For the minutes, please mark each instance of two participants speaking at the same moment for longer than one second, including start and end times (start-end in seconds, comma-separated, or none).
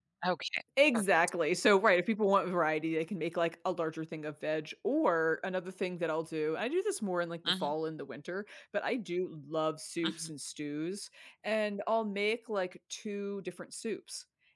none